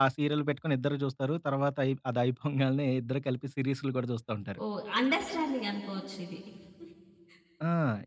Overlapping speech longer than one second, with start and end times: none

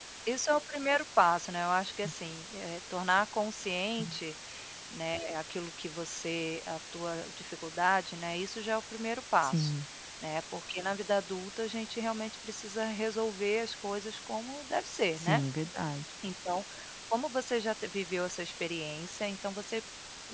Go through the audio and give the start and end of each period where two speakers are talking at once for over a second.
none

